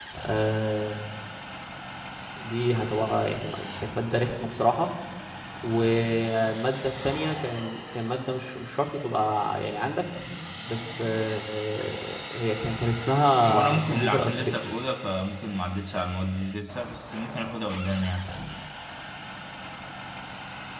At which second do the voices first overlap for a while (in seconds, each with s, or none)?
13.5 s